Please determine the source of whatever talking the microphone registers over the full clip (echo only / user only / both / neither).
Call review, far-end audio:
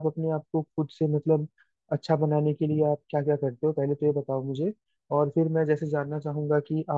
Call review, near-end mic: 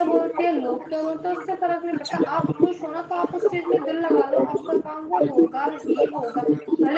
both